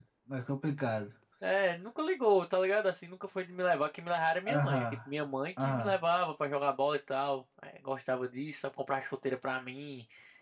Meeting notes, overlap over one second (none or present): none